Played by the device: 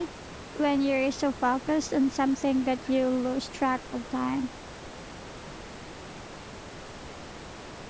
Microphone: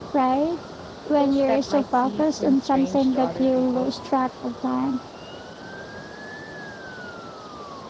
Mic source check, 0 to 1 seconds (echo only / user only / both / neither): echo only